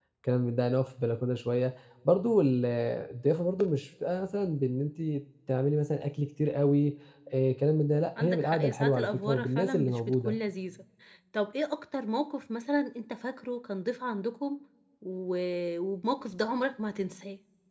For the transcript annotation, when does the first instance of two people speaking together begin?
8.2 s

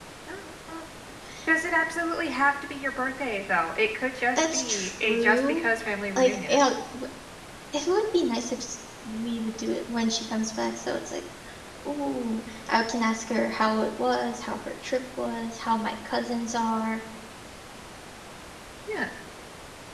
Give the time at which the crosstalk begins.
4.4 s

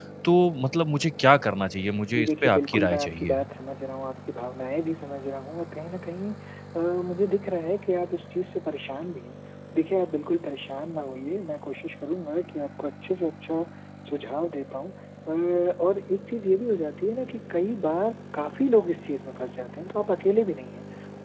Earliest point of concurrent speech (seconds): 2.1 s

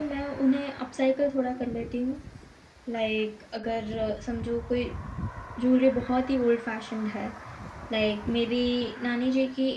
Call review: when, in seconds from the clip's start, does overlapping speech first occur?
none

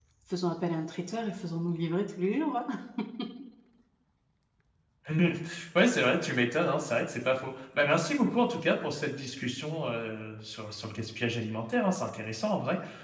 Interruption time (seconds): none

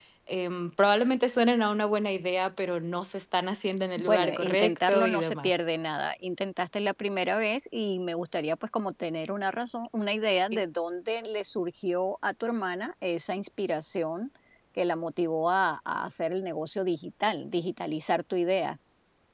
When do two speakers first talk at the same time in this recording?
4.0 s

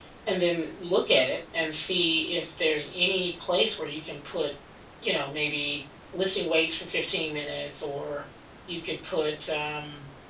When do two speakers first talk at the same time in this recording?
none

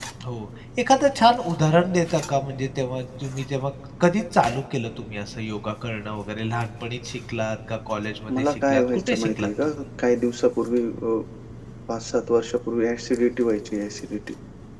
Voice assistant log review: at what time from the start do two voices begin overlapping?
8.3 s

